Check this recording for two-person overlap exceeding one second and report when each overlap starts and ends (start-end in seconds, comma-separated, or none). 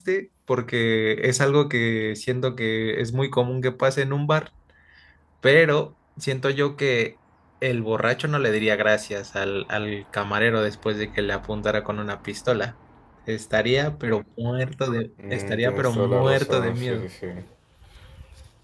15.3-17.1